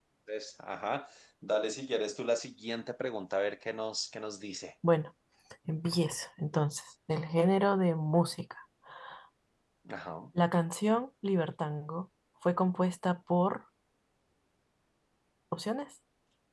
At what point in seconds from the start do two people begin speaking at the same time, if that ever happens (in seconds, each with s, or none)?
none